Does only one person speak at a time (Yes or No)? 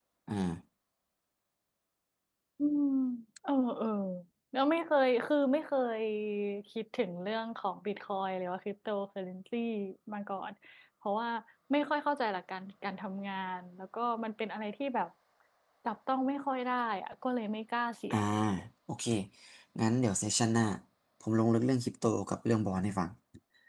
Yes